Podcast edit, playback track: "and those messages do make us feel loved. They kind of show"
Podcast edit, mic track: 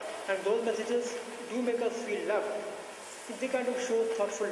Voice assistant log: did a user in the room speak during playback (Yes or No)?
No